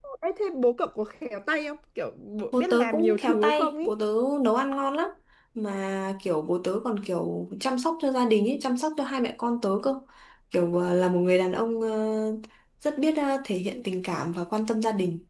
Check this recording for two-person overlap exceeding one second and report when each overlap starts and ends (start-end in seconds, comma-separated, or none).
2.6-3.9